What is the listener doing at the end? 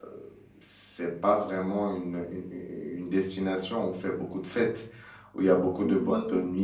listening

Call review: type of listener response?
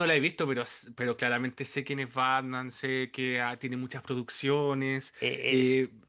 taking over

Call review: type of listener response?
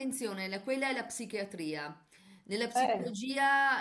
listening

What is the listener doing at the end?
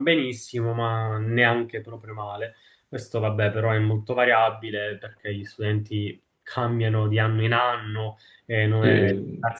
listening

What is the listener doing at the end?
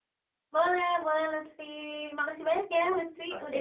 taking over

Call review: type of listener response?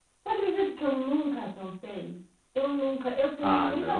listening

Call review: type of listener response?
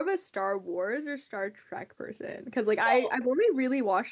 listening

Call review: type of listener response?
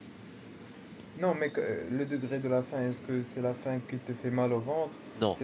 listening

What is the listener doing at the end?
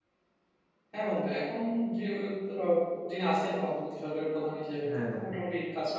listening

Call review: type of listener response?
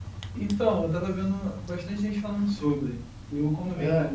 listening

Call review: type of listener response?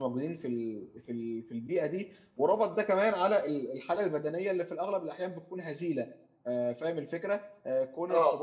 listening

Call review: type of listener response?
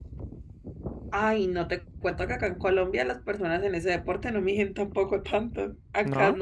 listening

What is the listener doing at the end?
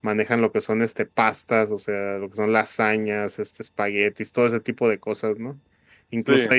listening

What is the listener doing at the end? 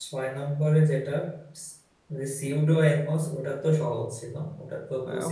taking over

